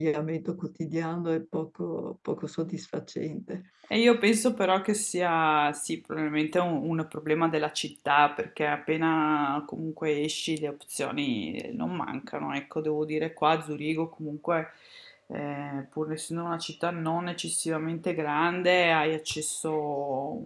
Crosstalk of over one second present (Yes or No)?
No